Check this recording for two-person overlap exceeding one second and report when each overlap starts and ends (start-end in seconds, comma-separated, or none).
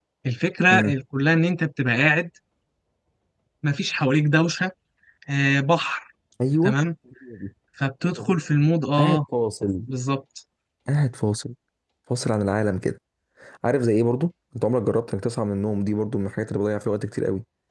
none